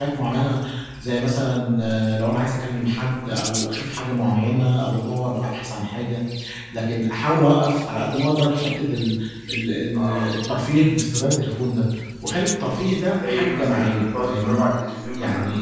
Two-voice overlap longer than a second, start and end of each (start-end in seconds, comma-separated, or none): 13.2-14.6